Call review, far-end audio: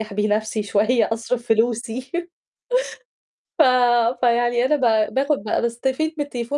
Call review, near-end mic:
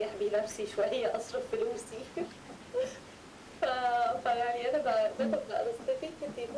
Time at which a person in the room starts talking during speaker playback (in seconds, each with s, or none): 5.2 s